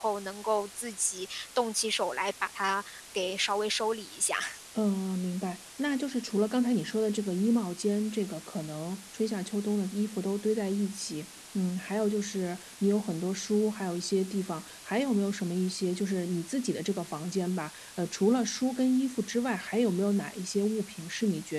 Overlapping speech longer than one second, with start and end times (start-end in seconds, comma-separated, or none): none